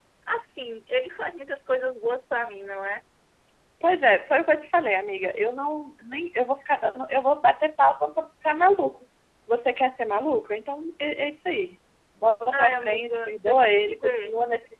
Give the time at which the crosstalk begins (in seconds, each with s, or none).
12.5 s